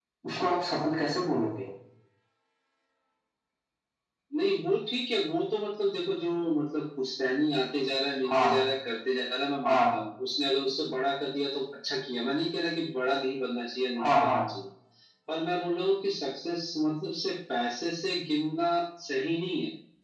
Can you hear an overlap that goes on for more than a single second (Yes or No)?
No